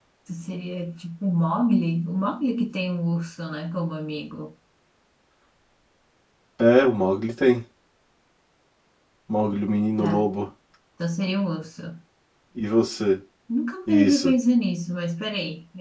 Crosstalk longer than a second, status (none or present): none